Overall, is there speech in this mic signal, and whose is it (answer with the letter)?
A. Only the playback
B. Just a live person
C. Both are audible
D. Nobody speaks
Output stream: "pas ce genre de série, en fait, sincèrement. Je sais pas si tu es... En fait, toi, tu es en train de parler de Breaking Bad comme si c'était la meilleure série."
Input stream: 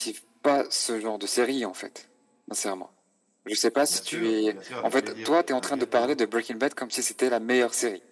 C